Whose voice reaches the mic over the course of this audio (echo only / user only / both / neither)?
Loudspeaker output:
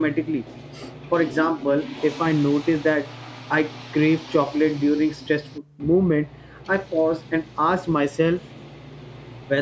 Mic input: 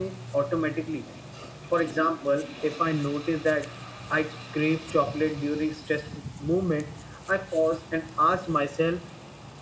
echo only